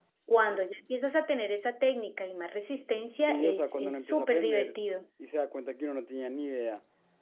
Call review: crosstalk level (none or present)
present